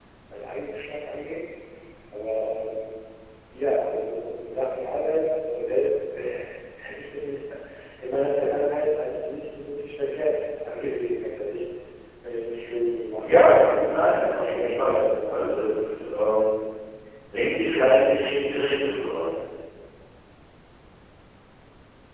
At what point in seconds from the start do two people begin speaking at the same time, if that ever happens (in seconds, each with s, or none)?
13.2 s